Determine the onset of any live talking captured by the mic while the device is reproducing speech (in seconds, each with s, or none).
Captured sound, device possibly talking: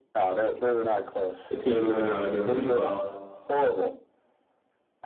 1.5 s